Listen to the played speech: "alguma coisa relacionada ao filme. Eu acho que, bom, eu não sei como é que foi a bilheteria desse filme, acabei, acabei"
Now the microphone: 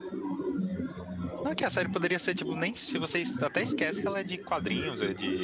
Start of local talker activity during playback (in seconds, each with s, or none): 1.4 s